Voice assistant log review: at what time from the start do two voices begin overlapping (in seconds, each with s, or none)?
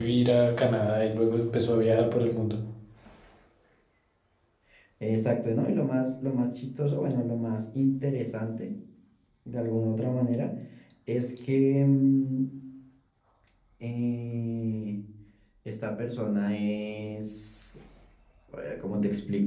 none